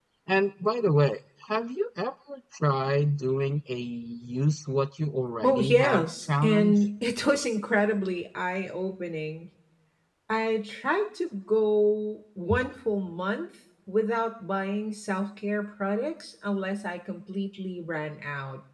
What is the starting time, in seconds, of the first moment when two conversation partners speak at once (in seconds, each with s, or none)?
5.4 s